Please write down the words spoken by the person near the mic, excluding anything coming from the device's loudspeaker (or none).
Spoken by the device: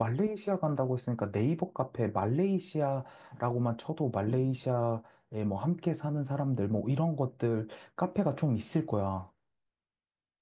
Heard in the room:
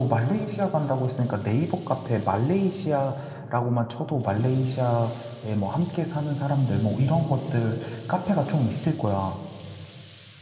none